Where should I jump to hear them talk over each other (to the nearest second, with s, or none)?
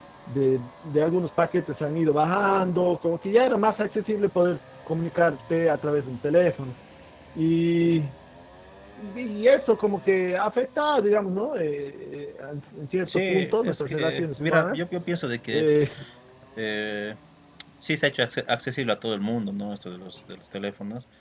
13 s